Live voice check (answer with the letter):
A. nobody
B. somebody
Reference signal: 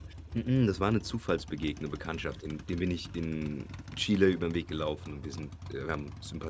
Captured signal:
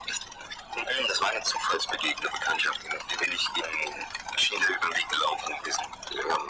A